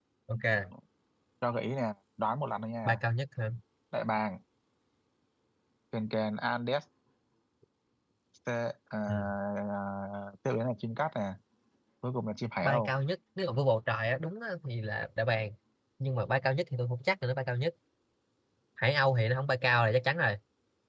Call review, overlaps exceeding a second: none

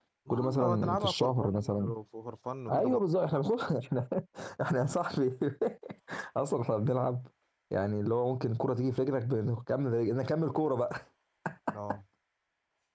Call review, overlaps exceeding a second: present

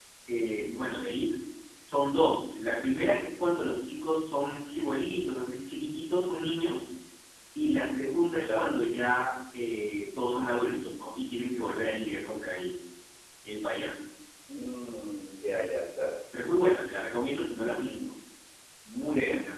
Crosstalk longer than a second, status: none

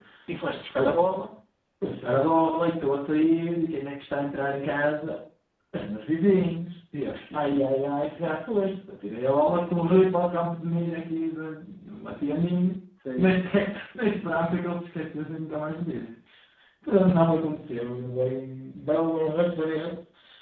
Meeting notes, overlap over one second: none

